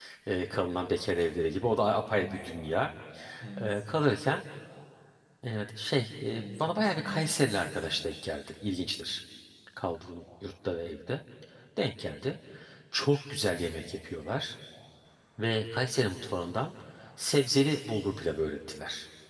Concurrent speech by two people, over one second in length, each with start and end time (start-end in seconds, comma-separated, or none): 6.2-7.7